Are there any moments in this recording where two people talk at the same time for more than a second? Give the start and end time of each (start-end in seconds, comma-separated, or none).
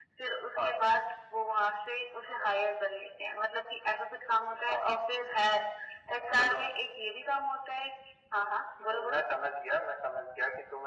none